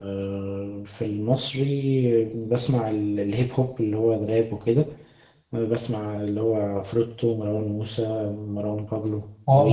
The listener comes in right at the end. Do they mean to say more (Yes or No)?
Yes